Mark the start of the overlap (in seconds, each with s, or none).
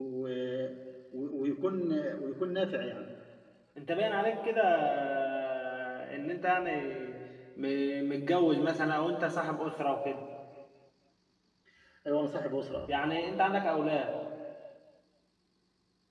none